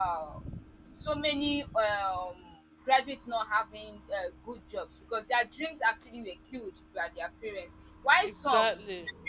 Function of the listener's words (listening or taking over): listening